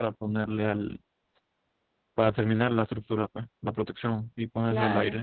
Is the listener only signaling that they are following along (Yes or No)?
Yes